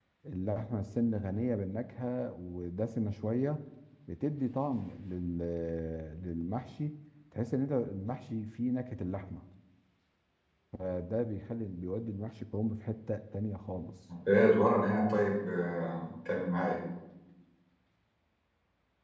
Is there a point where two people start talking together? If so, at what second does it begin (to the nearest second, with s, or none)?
none